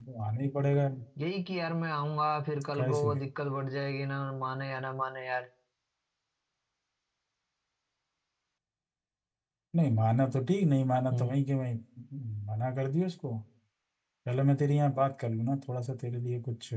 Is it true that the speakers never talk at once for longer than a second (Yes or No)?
Yes